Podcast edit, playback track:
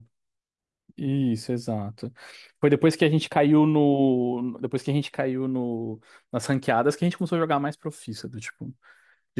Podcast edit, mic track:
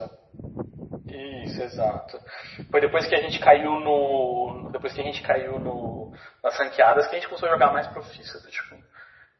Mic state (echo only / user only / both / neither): echo only